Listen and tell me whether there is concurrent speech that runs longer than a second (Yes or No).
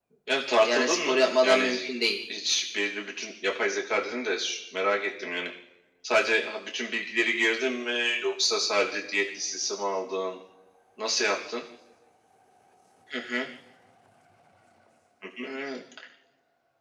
Yes